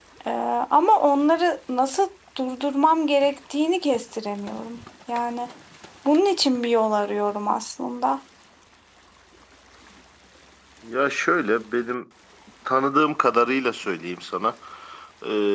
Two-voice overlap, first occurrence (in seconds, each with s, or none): none